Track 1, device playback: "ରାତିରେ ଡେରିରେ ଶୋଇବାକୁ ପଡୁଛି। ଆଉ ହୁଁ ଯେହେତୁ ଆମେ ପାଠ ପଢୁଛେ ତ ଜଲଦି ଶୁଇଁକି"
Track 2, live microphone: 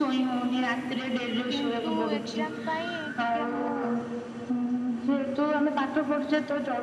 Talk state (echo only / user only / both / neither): both